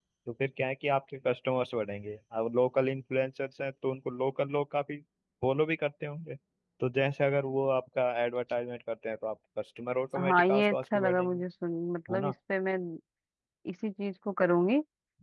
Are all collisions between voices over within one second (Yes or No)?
No